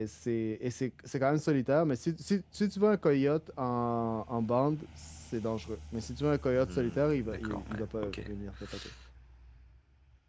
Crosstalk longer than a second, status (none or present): present